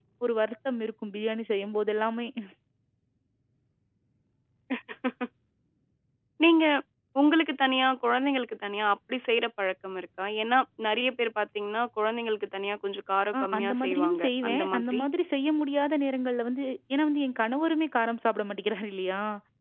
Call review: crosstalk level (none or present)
present